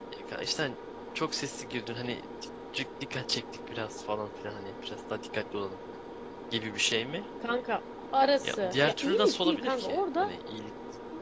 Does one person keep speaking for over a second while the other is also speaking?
Yes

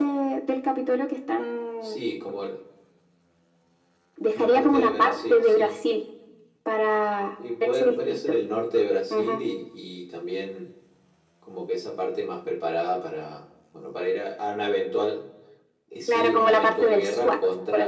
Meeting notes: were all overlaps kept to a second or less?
No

